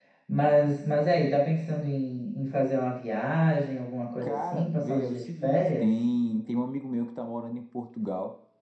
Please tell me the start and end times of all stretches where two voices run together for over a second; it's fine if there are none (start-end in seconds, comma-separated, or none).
4.2-5.9